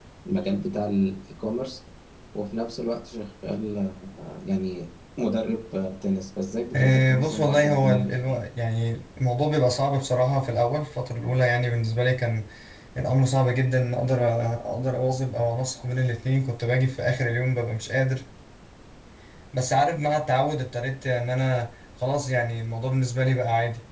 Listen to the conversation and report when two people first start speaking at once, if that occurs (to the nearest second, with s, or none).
7 s